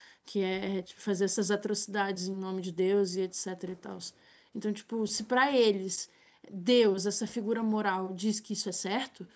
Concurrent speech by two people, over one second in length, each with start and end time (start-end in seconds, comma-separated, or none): none